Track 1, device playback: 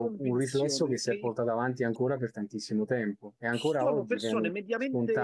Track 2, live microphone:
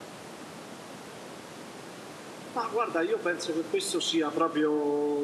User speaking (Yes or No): Yes